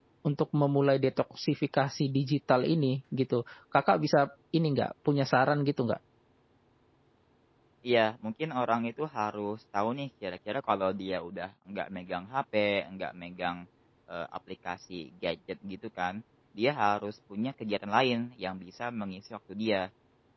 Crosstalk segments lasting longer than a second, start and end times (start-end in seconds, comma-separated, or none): none